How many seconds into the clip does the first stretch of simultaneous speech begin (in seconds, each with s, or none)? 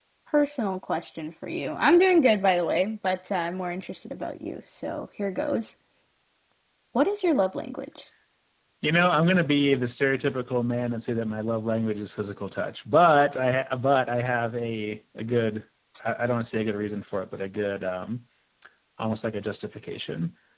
none